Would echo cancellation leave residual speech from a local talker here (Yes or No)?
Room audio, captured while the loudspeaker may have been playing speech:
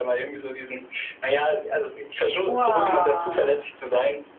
Yes